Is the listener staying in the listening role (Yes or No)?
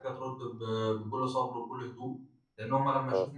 Yes